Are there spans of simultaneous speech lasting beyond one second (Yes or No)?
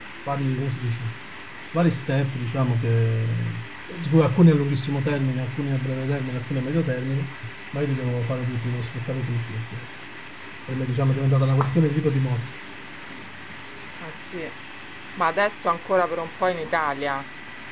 No